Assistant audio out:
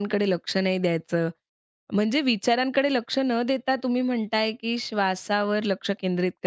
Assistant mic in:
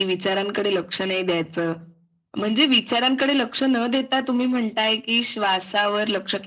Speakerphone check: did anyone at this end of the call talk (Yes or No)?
No